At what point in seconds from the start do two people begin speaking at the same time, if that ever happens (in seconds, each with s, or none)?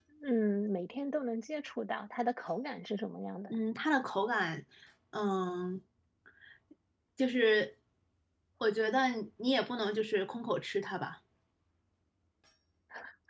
none